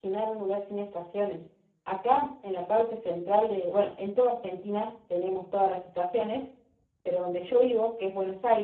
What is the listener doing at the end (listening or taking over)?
listening